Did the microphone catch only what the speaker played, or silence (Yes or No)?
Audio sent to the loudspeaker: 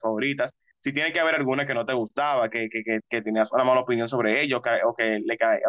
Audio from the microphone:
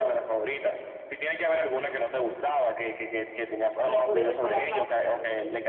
No